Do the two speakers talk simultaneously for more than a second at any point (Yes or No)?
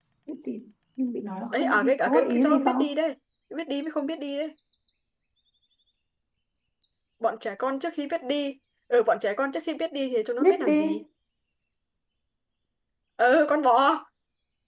Yes